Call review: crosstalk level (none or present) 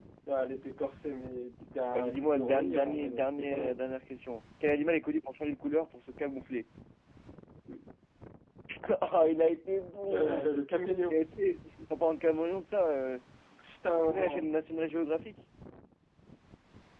present